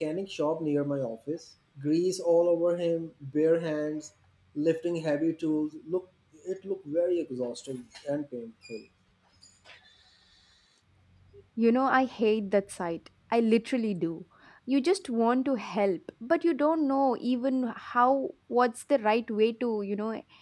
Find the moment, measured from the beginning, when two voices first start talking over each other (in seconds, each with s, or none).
none